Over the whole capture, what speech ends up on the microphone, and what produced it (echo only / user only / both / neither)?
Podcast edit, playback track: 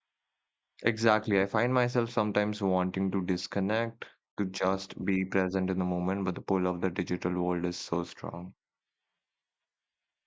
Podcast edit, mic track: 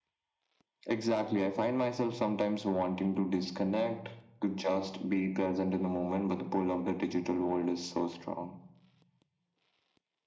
echo only